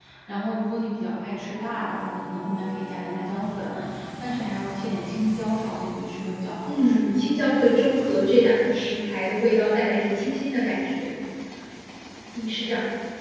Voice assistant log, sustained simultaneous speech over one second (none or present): none